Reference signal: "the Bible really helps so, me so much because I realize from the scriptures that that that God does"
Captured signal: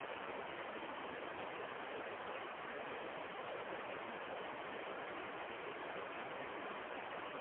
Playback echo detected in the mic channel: No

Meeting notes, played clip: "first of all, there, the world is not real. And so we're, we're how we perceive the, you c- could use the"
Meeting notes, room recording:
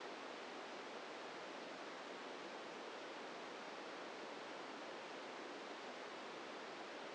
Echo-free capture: Yes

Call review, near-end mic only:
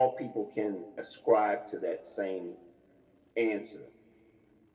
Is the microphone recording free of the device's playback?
No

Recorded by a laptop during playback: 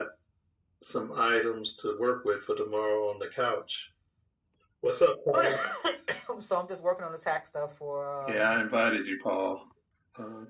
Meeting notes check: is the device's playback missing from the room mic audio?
No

